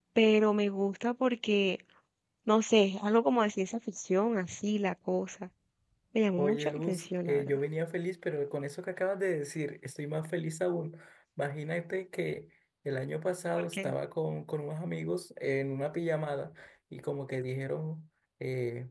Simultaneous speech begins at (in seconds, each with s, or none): 6.4 s